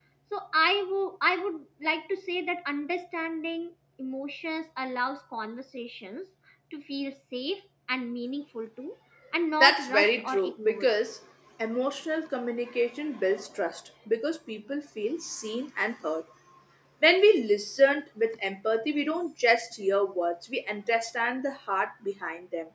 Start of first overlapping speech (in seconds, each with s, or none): 9.6 s